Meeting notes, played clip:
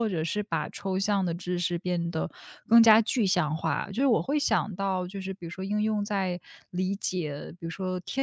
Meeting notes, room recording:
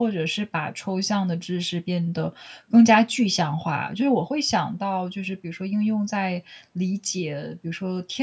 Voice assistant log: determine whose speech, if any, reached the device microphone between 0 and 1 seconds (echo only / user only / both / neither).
echo only